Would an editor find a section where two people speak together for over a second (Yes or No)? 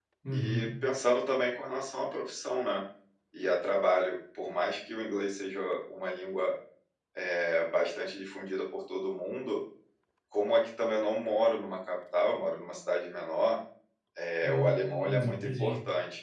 Yes